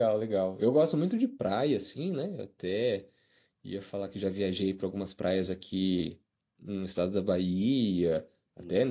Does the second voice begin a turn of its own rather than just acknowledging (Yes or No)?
No